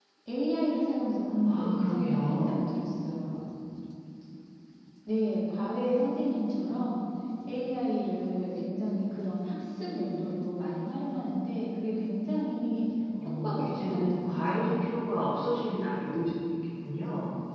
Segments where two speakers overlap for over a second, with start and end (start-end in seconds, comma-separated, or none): 1.4-2.8, 13.4-14.7